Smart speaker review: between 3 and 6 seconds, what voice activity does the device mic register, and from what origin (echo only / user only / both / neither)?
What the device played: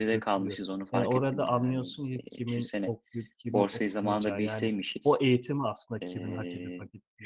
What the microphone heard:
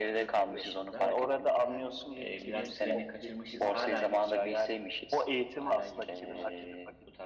both